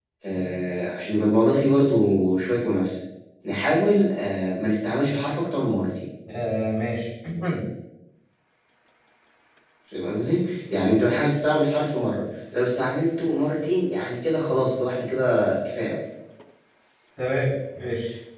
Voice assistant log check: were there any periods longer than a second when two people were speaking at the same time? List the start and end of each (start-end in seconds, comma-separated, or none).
none